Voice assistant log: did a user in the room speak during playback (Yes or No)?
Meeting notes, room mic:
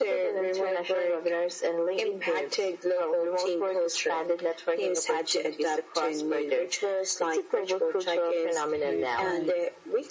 Yes